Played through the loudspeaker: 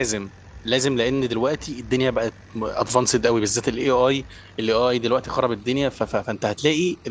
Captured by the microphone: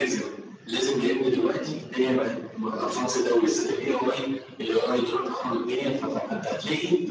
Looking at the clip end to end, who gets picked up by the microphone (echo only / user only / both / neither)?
echo only